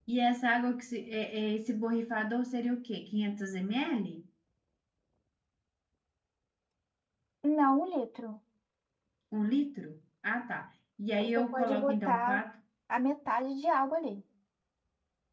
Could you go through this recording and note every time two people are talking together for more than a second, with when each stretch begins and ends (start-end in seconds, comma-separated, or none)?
11.2-12.4